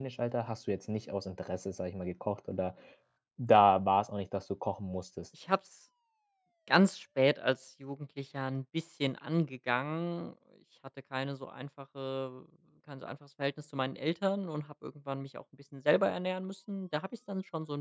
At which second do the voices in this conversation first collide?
none

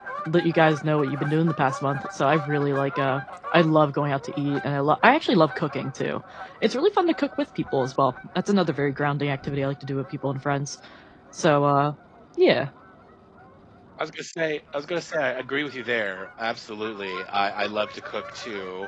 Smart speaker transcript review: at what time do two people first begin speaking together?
none

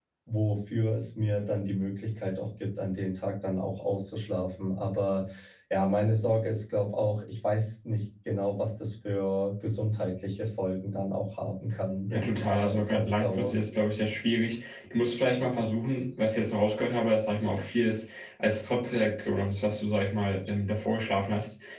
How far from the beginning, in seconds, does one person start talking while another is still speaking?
12.1 s

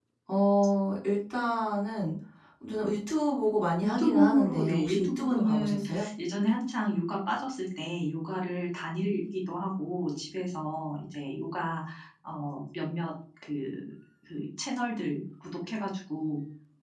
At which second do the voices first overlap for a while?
3.8 s

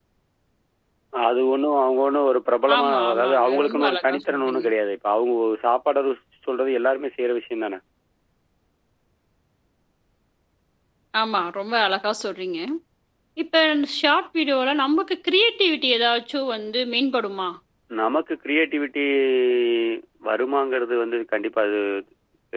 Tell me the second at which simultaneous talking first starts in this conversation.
2.7 s

